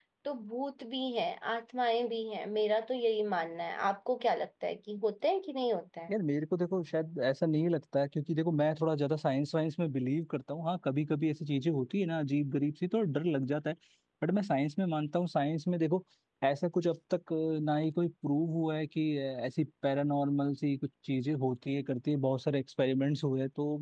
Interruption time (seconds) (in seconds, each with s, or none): none